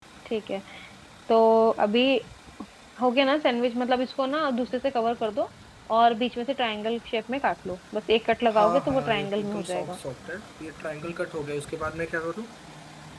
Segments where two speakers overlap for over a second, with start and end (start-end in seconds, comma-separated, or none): 8.5-10.0